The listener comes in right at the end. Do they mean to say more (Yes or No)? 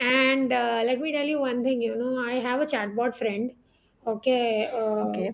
No